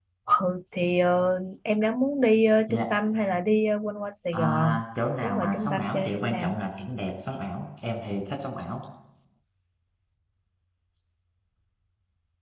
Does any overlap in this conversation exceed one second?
Yes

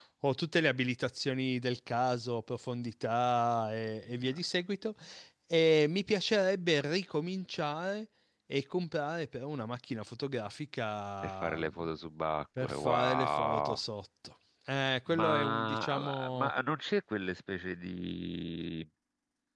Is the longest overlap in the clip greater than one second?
Yes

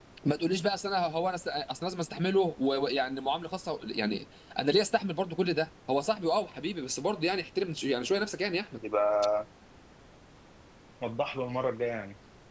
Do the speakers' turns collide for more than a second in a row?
No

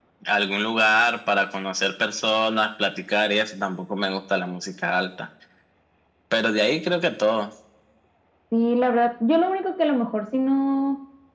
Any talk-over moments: No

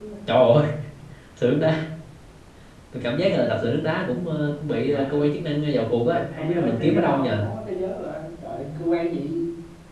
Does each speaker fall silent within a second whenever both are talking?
No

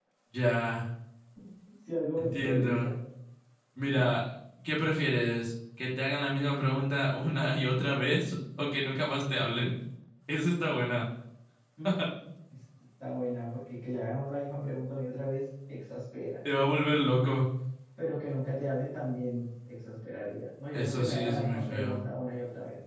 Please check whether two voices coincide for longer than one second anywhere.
Yes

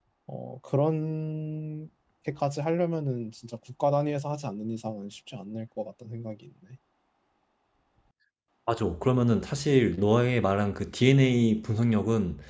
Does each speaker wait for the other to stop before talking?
Yes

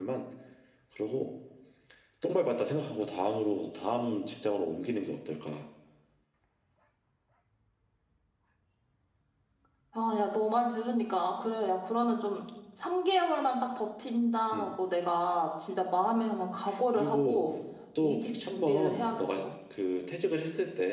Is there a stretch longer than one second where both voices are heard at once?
Yes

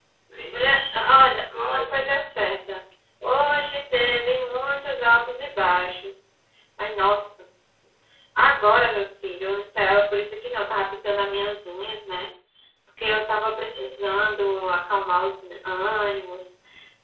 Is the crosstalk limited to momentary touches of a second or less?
No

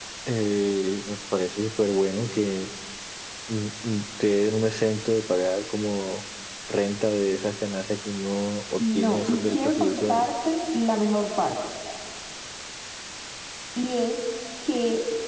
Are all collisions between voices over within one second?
No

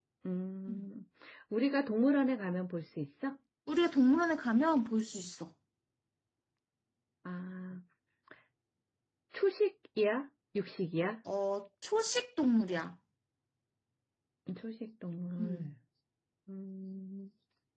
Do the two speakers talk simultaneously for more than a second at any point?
No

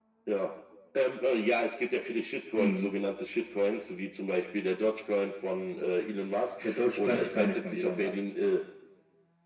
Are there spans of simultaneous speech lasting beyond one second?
Yes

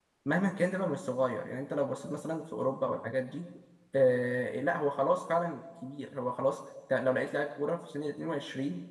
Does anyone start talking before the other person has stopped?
No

